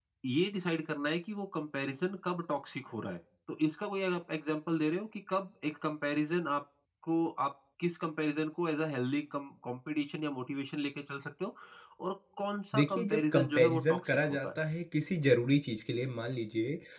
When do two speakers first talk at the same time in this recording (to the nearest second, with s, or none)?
13 s